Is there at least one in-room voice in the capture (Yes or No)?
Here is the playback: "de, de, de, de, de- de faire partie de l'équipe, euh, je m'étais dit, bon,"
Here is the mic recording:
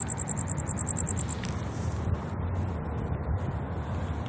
No